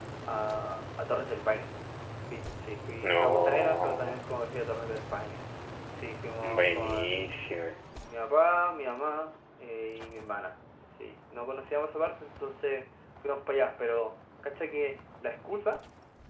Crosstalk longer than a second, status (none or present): present